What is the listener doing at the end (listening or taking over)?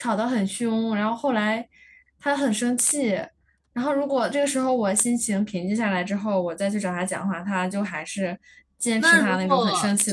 taking over